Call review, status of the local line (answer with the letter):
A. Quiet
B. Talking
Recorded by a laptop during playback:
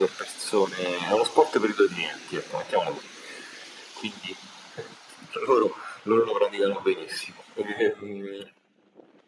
A